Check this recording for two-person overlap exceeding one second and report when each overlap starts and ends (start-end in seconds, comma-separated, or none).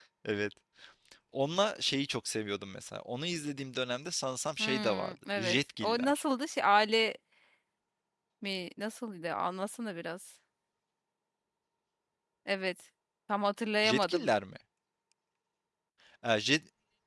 4.6-6.2